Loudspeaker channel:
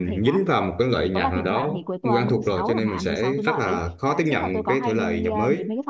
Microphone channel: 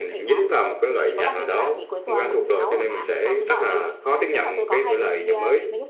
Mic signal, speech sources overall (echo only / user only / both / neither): echo only